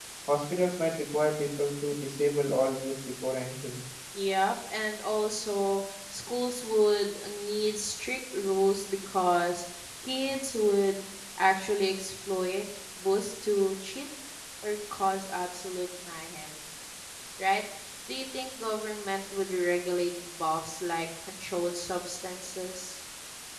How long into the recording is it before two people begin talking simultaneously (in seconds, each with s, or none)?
none